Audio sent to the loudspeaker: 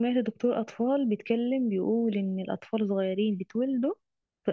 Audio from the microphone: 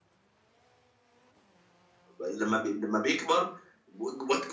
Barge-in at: 2.2 s

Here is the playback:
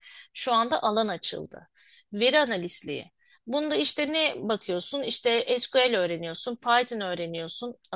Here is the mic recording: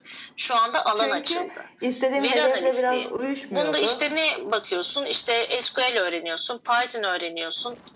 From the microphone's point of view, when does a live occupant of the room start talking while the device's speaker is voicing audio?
0.9 s

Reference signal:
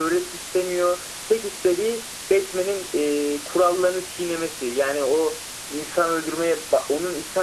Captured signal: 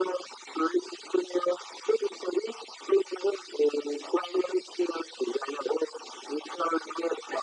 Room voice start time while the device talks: none

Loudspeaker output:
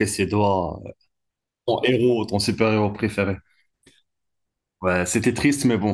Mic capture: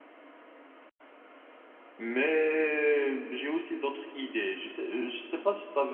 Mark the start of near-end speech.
2.0 s

